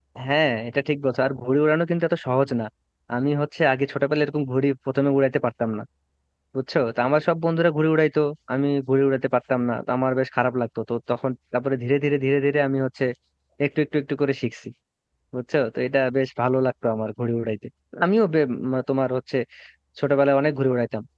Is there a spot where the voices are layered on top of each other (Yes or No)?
No